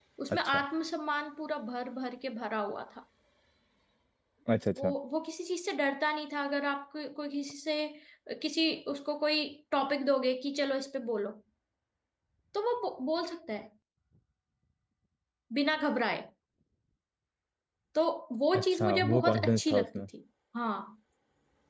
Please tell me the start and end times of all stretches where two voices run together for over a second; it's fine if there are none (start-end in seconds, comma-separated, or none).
18.6-20.1